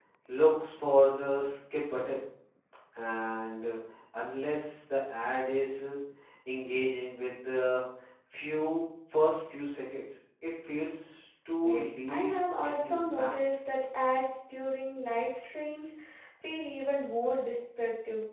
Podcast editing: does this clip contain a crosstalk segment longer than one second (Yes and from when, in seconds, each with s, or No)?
Yes, from 11.6 s